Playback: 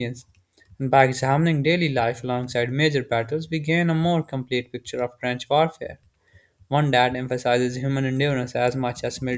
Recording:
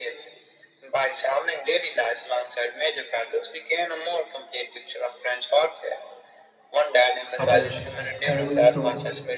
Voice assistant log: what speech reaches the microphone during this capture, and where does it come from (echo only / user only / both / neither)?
both